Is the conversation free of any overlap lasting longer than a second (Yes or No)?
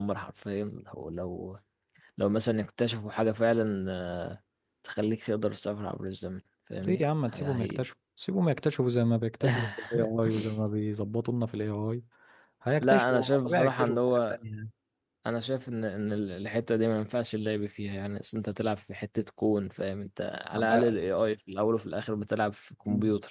No